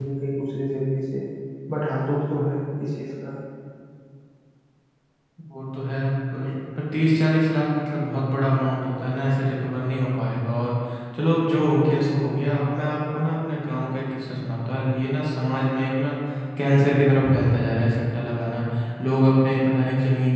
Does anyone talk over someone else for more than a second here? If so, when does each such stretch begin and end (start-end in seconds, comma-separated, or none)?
none